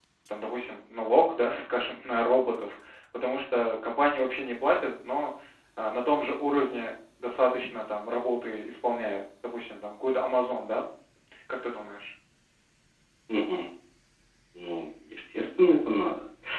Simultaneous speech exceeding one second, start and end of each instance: none

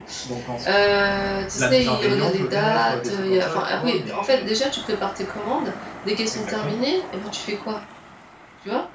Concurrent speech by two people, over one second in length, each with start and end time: 1.6-4.5

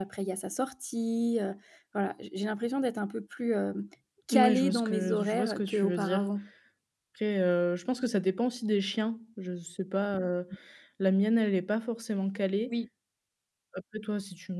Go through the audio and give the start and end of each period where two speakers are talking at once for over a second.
4.3-6.3

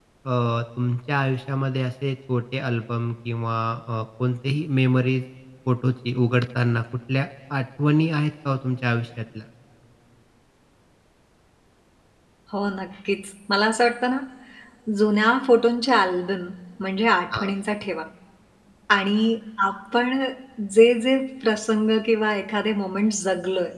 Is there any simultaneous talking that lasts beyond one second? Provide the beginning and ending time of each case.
none

